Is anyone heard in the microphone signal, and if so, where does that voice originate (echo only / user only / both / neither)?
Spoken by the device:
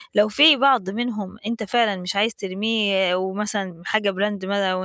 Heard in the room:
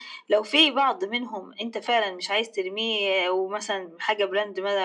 echo only